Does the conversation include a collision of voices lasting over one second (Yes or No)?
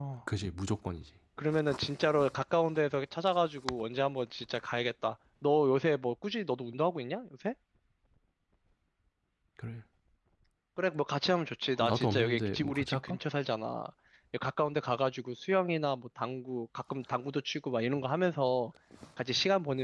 Yes